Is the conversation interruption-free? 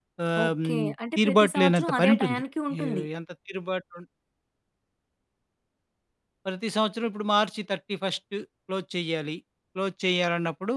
No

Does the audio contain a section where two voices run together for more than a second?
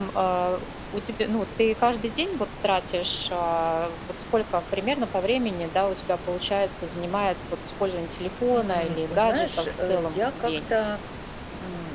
Yes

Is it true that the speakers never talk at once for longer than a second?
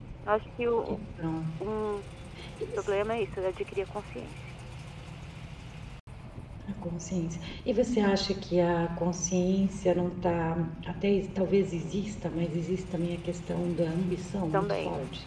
Yes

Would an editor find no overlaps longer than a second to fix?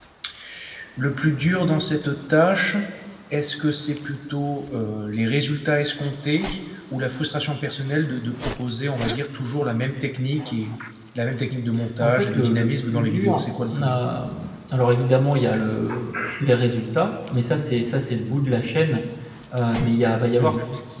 No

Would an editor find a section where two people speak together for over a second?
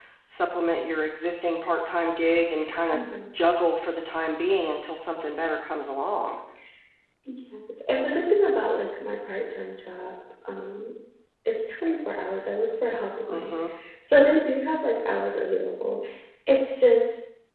No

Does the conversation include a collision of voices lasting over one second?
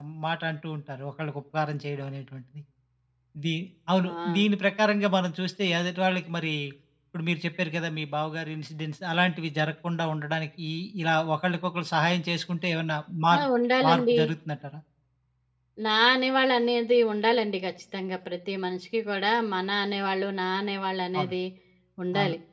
No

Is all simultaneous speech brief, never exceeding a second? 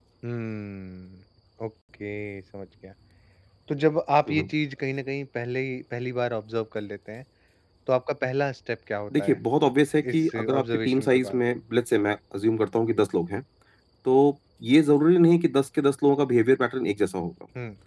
No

